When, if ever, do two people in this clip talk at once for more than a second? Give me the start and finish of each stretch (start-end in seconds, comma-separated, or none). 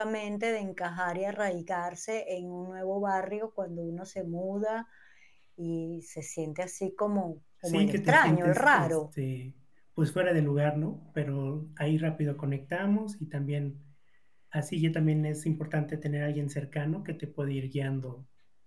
7.7-9.0